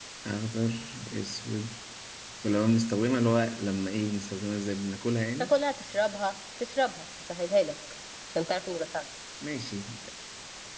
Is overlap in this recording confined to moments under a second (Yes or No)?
Yes